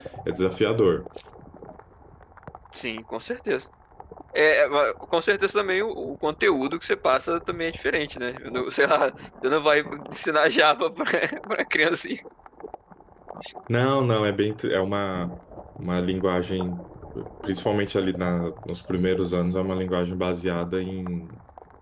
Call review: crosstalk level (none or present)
none